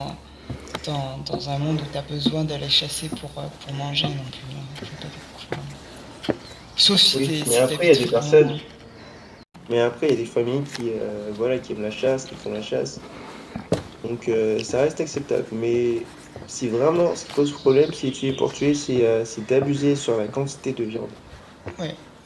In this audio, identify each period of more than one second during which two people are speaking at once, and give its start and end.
7.1-8.5

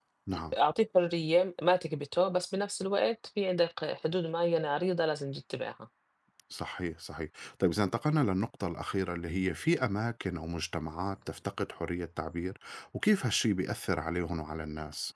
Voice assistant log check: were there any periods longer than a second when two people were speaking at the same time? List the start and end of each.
none

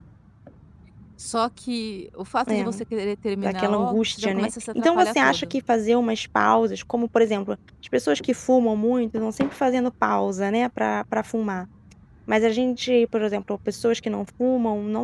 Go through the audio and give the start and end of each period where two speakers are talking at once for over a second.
3.4-5.5

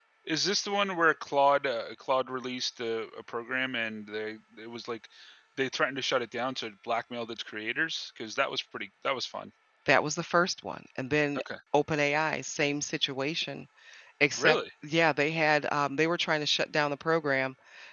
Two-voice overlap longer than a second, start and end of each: none

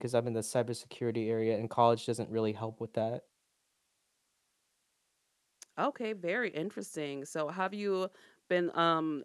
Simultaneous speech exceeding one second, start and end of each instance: none

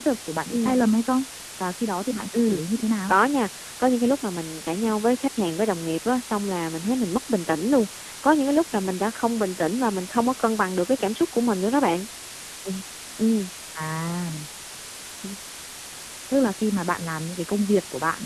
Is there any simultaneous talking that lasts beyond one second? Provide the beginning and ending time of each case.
none

